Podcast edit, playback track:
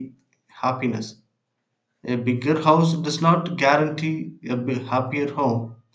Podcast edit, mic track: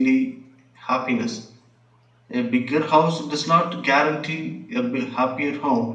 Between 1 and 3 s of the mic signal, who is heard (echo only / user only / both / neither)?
echo only